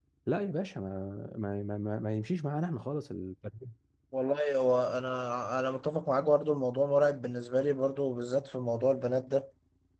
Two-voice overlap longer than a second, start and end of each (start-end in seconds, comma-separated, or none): none